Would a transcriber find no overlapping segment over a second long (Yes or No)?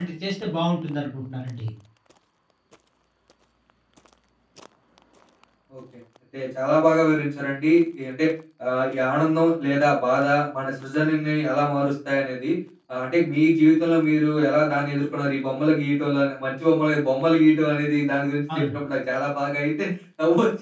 Yes